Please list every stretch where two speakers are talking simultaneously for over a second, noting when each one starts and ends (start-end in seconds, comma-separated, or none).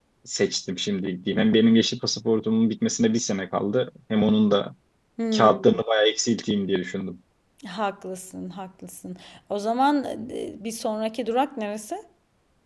none